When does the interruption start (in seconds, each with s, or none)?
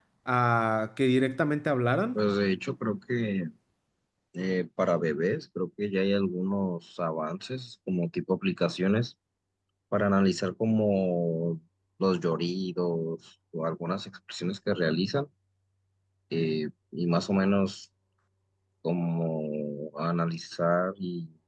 none